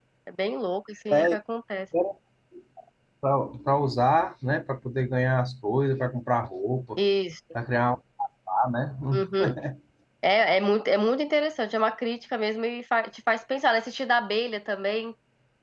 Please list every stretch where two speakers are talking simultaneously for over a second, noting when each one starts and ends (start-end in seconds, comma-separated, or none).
none